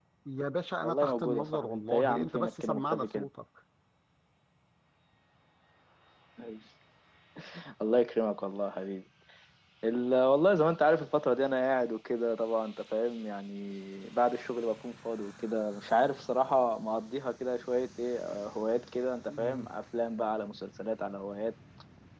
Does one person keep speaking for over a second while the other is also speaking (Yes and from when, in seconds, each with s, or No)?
Yes, from 0.8 s